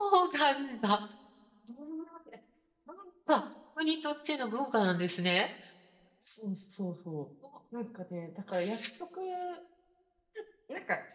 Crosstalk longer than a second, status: none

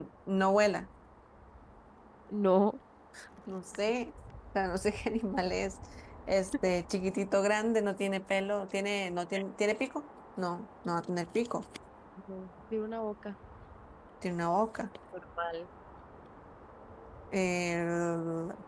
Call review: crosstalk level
none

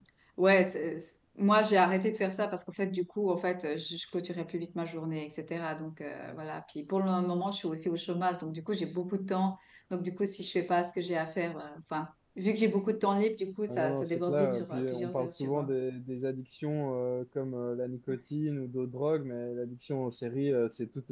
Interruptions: present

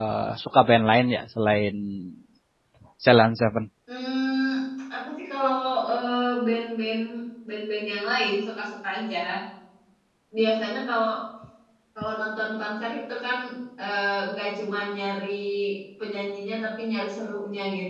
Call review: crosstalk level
none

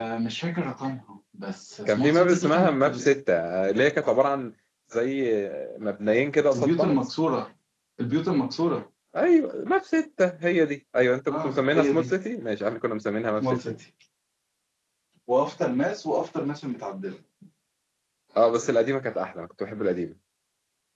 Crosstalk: present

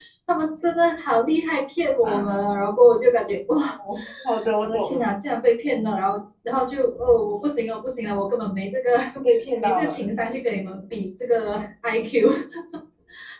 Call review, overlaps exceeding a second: none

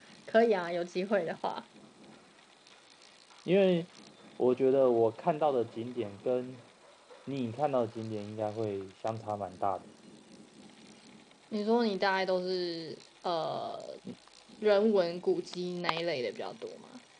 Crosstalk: none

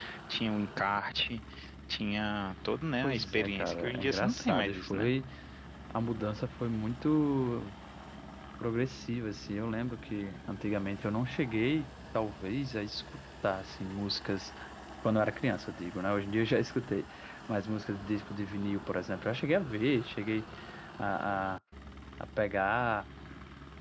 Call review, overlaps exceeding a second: present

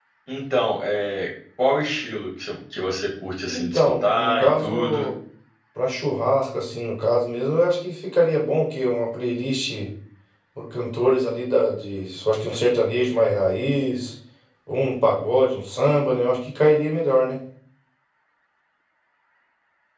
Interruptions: present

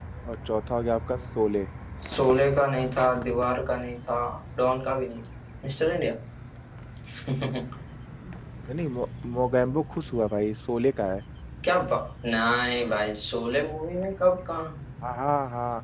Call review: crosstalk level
none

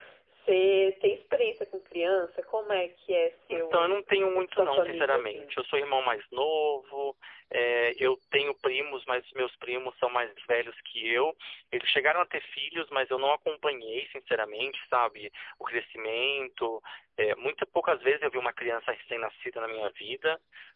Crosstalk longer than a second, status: present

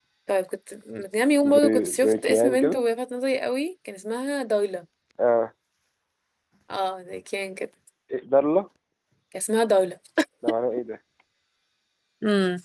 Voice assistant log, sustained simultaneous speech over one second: present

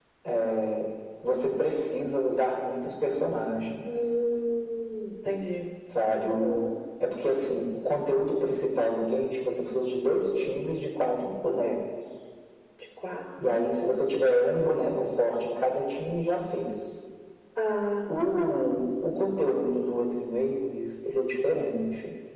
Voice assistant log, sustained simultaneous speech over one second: none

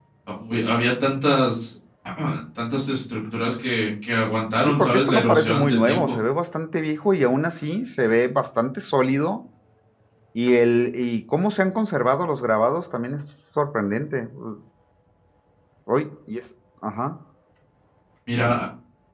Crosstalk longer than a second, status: present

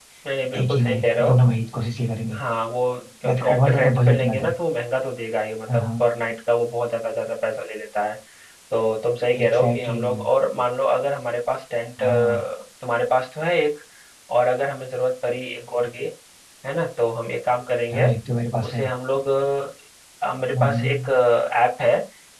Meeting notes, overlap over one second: present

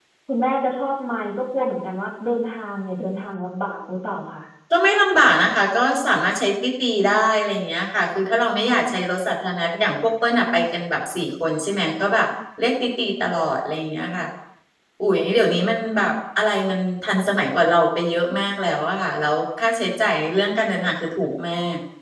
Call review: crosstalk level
none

